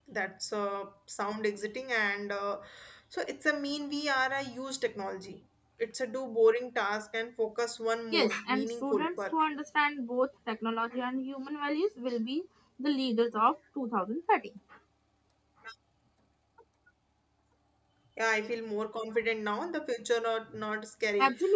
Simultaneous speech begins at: 8.1 s

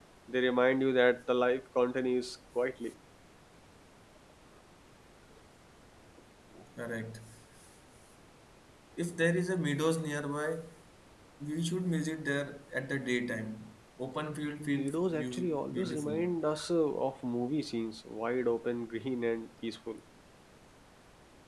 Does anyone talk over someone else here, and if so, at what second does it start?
14.6 s

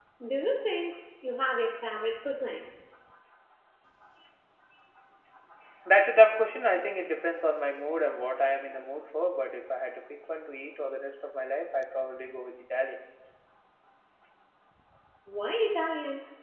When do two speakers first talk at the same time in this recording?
none

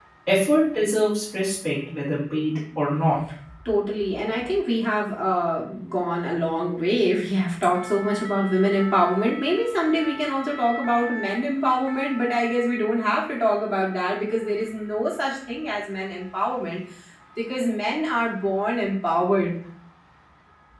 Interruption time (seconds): none

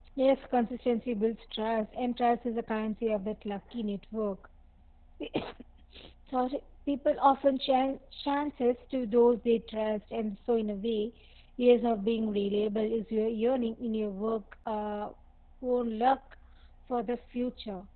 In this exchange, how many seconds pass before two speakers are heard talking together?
none

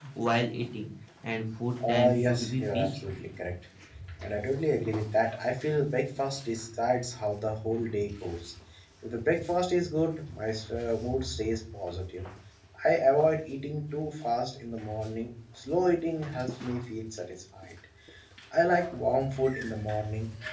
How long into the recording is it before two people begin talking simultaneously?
1.8 s

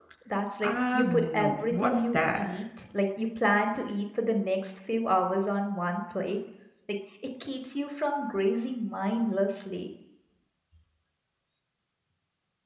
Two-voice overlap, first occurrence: 0.6 s

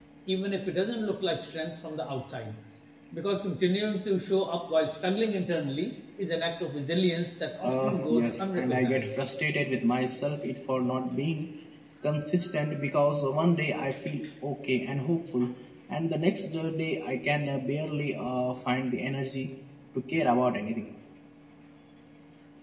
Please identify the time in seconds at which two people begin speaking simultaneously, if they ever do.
7.6 s

